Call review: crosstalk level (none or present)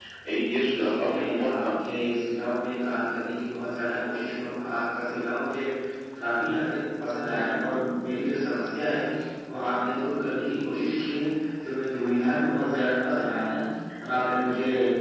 present